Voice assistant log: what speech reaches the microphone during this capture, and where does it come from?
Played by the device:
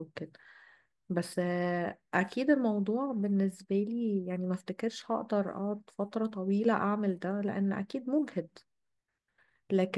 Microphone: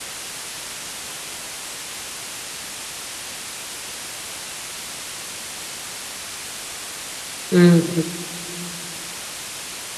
user only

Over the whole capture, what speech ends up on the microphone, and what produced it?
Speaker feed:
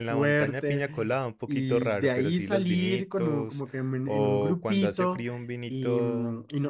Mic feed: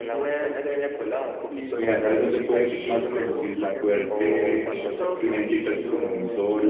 both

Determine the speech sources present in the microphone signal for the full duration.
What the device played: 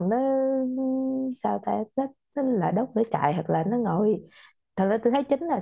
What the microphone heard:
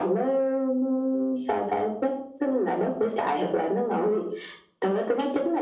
echo only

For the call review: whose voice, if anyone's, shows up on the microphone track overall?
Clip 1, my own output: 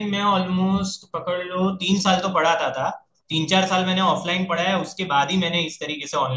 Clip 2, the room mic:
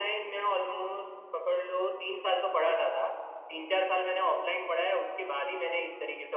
echo only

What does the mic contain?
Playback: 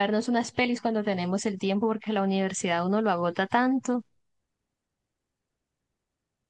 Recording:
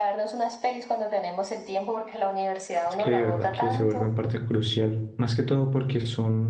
both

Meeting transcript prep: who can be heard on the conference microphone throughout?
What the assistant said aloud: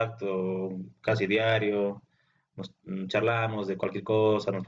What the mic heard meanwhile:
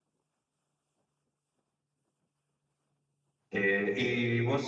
user only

